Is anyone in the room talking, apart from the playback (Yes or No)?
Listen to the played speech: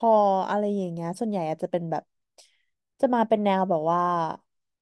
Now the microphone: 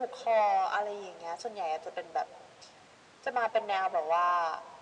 No